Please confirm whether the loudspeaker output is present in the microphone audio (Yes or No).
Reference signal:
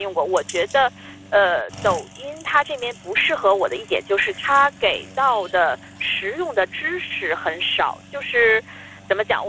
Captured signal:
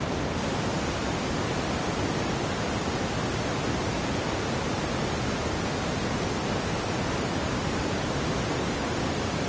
No